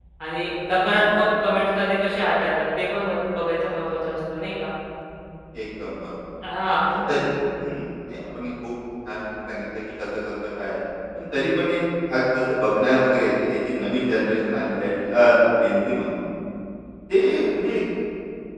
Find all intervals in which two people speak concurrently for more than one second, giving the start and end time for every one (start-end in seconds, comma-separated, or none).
none